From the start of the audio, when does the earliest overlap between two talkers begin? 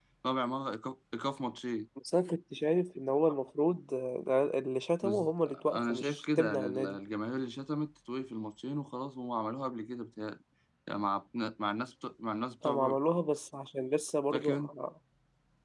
5.0 s

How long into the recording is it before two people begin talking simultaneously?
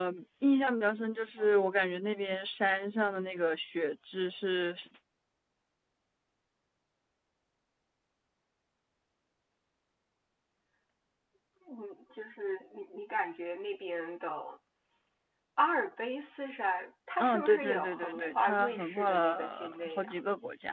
17.2 s

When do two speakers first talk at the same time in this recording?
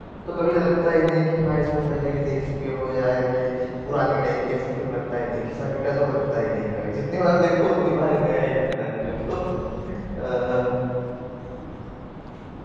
none

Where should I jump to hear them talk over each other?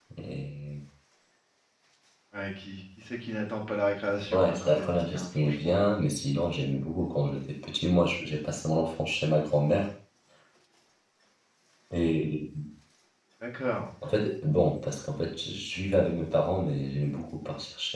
4.3 s

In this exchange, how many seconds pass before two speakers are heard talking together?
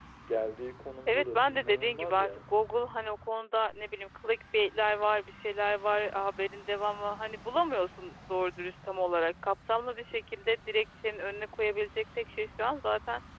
1.1 s

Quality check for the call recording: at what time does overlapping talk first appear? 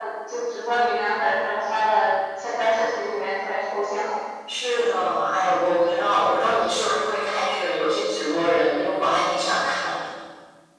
none

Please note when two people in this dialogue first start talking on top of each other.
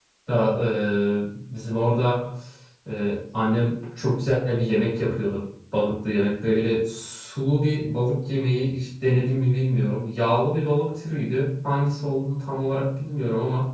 none

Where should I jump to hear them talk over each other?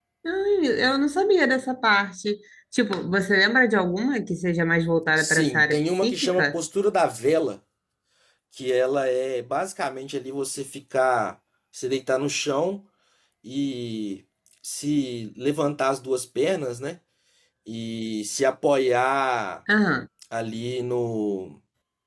5.2 s

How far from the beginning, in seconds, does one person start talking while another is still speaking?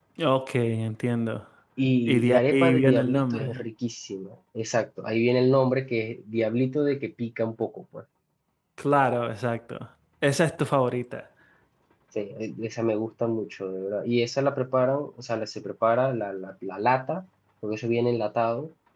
2.1 s

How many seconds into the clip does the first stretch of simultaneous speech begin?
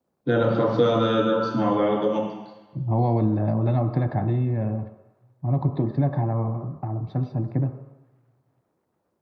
none

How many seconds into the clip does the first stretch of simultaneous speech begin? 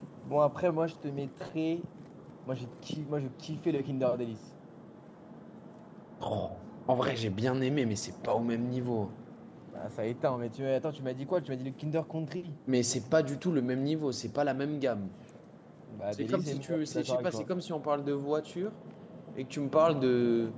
16.1 s

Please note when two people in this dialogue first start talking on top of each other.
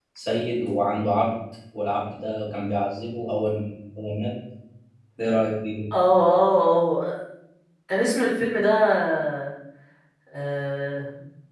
none

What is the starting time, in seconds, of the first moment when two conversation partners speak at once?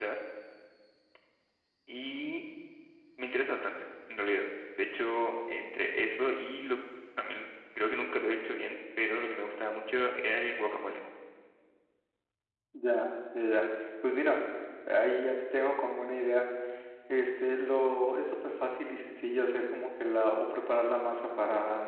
none

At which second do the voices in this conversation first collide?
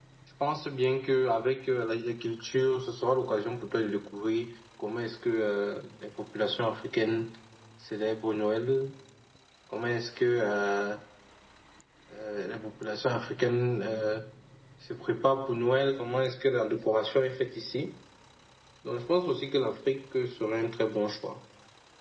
none

